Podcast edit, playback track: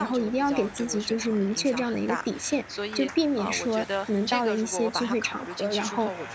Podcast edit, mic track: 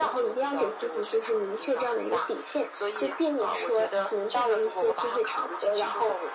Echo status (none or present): present